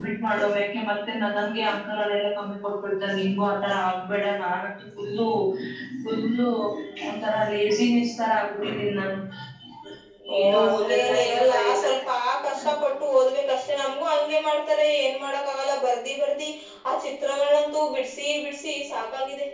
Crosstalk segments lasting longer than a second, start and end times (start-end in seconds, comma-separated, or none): 10.4-11.9